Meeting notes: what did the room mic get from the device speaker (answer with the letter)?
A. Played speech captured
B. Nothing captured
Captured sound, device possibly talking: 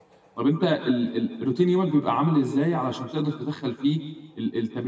B